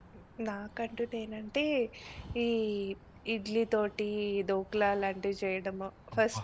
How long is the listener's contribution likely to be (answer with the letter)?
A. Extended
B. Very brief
B